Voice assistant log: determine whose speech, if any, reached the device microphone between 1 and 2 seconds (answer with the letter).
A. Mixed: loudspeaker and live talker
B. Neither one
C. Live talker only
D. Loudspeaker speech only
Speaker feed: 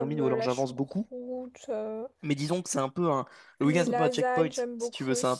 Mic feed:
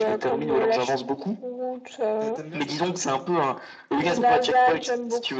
D